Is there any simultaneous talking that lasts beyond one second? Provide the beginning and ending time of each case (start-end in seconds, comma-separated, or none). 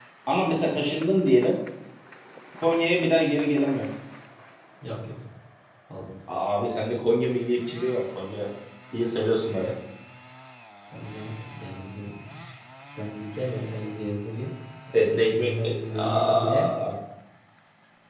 15.0-16.7